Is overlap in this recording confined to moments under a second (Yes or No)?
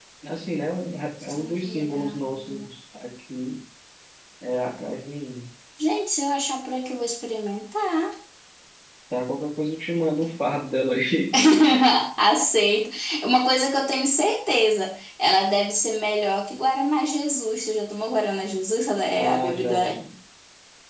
No